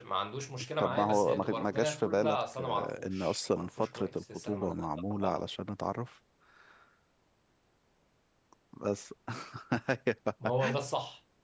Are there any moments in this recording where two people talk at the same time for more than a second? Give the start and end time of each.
0.8-5.4

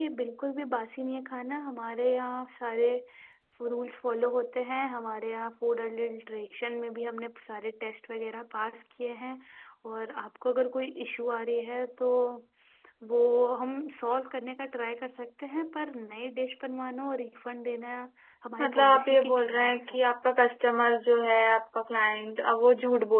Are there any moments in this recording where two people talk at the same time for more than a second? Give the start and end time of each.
18.6-20.0

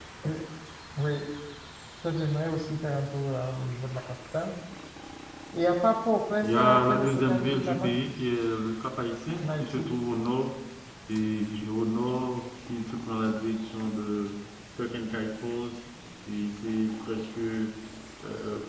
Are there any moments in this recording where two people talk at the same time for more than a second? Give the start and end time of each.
6.4-7.9

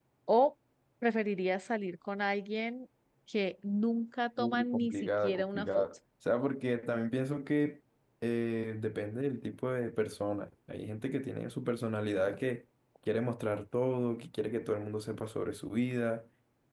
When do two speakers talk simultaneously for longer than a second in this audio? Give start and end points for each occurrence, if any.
4.4-5.8

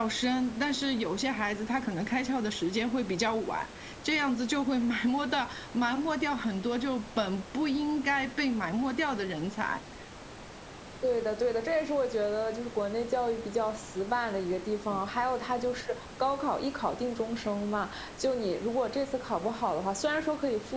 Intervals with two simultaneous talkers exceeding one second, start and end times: none

